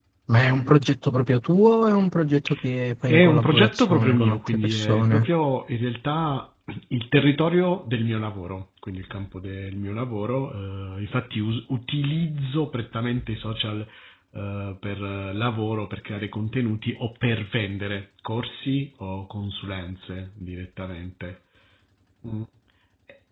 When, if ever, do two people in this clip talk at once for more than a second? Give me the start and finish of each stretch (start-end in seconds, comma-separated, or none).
3.1-5.3